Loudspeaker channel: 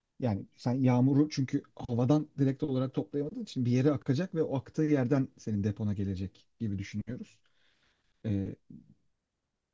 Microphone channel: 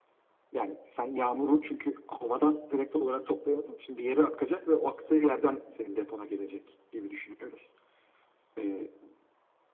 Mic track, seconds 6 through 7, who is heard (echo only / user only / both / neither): echo only